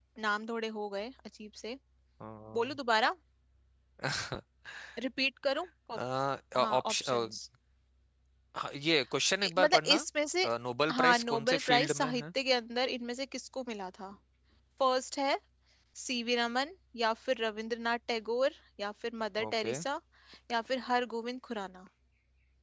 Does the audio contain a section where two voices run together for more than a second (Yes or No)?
Yes